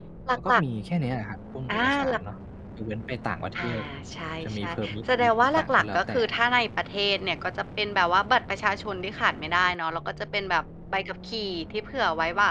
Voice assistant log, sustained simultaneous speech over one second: present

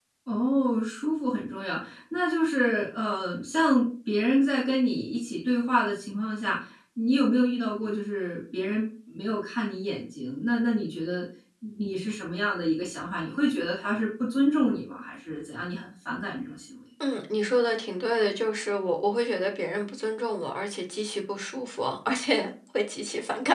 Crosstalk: none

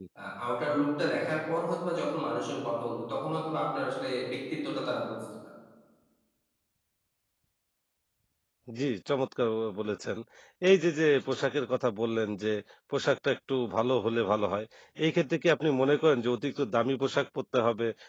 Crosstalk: none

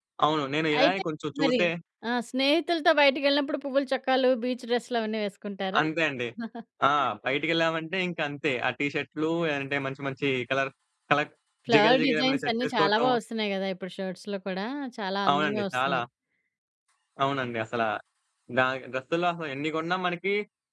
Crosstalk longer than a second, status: present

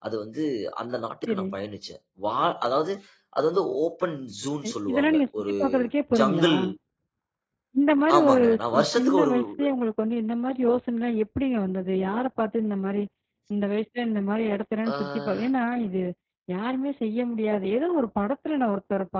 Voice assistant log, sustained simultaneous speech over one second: present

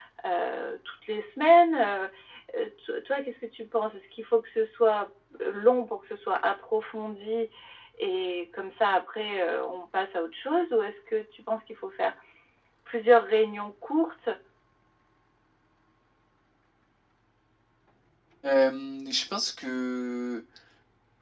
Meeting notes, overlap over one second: none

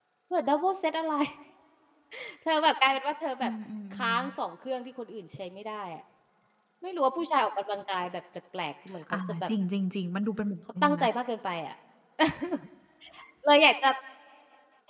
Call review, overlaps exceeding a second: none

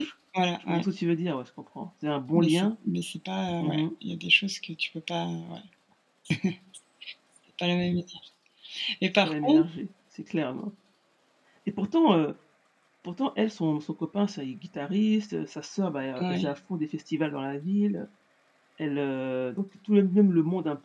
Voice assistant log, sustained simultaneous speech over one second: none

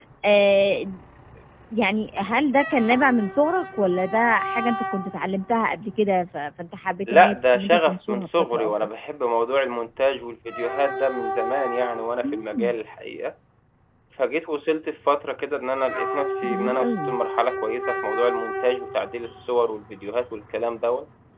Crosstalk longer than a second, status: present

